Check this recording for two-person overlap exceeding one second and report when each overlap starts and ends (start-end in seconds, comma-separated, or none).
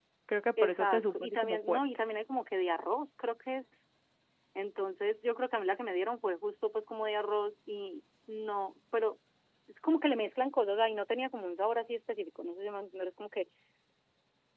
0.6-1.8